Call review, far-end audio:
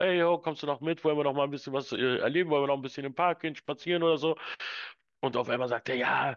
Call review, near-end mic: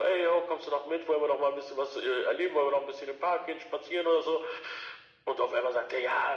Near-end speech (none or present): none